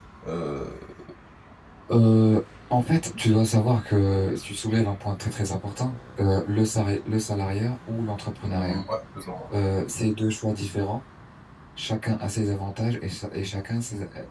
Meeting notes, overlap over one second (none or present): none